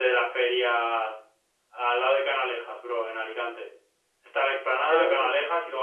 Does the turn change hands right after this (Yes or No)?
No